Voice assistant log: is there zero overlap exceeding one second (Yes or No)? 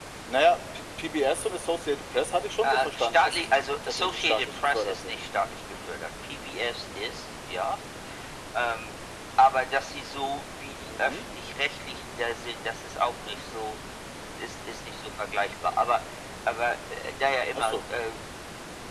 No